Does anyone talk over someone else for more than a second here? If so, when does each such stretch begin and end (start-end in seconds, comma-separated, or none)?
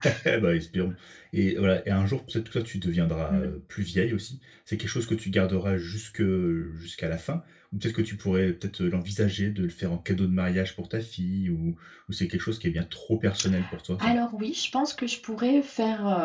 none